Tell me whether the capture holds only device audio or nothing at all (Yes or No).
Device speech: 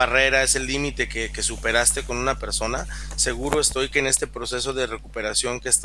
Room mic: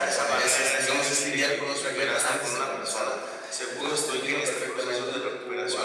No